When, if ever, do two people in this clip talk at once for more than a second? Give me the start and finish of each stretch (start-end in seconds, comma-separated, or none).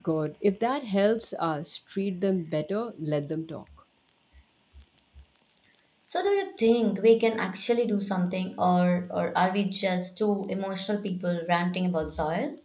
none